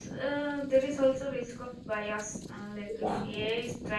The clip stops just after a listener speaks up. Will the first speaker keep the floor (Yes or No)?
Yes